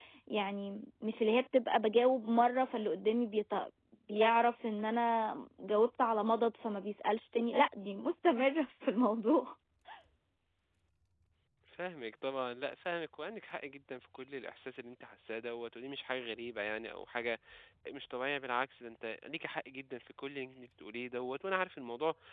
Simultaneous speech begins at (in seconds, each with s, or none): none